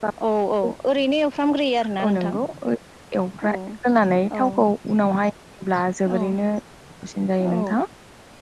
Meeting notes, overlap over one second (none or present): none